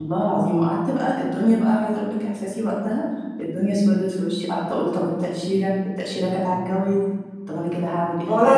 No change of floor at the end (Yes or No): No